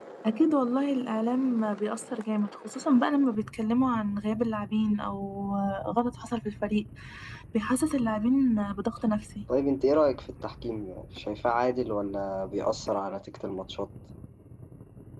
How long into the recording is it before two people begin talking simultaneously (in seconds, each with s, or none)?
none